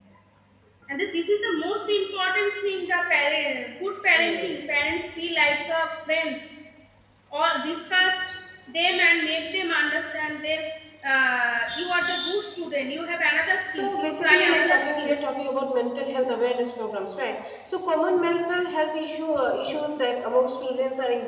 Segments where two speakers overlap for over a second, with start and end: 13.8-15.2

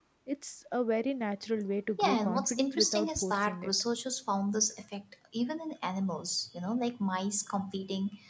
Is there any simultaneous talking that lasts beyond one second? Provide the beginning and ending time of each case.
2.0-3.7

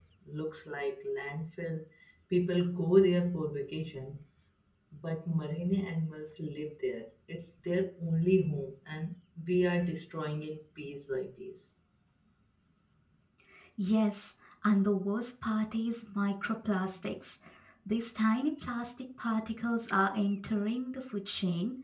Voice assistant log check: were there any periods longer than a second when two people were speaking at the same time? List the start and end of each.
none

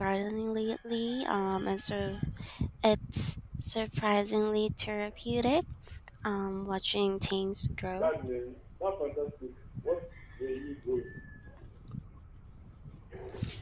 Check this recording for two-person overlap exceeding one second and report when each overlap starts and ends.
none

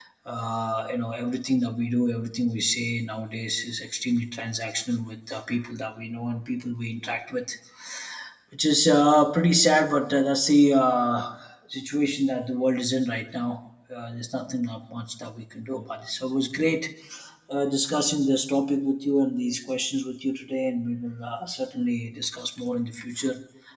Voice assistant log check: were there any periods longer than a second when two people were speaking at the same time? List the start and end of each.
none

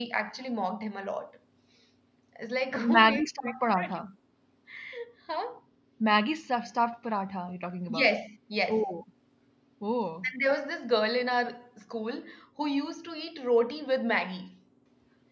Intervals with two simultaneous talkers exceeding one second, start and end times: 2.7-4.0

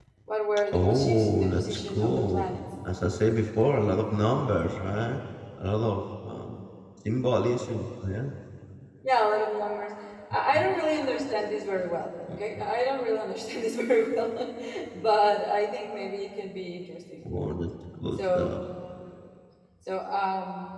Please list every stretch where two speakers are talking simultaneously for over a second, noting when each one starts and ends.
0.7-2.6

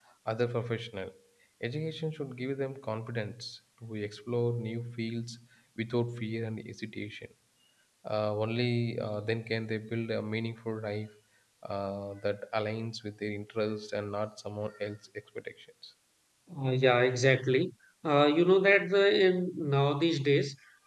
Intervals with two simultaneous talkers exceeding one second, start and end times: none

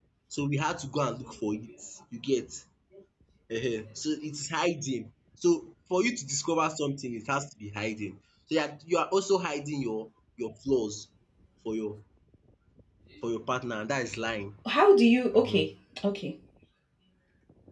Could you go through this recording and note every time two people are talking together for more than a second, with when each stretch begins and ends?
none

